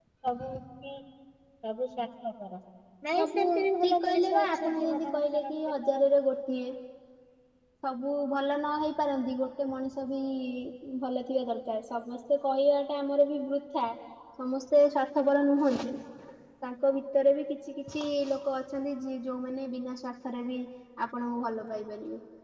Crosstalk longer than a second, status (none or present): present